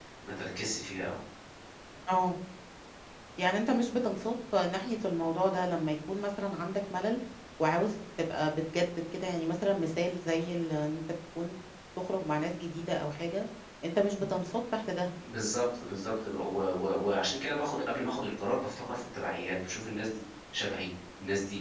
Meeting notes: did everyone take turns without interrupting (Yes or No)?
Yes